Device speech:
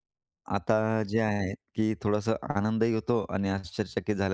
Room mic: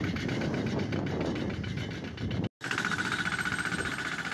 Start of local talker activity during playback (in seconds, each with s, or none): none